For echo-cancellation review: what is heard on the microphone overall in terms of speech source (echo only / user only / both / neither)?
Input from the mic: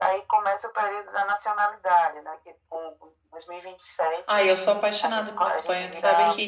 both